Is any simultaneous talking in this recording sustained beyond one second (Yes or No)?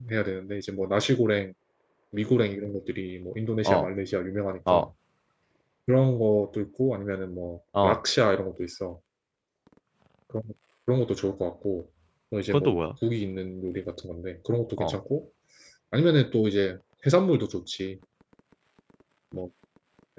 No